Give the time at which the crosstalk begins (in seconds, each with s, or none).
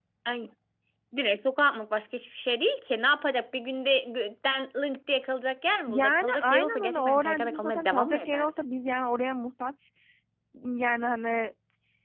5.9 s